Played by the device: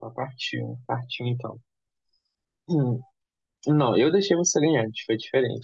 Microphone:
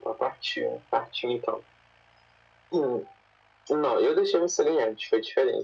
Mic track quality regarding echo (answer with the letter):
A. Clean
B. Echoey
B